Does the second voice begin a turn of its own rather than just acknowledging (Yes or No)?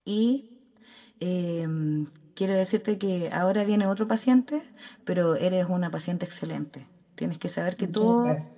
No